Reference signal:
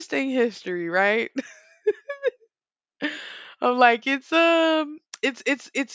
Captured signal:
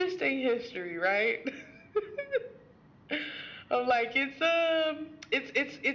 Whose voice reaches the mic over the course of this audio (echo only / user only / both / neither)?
echo only